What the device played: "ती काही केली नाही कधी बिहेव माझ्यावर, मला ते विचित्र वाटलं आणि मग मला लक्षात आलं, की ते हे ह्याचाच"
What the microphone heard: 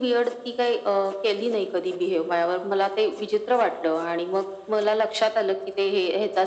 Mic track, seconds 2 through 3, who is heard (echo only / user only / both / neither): echo only